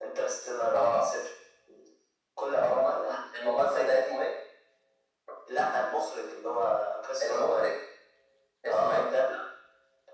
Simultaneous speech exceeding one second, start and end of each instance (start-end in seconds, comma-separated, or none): 2.6-4.0